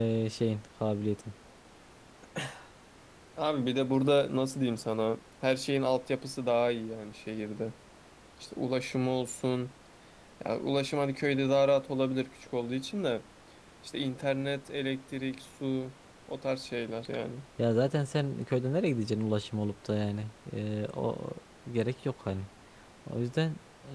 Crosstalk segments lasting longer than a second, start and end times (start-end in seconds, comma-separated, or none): none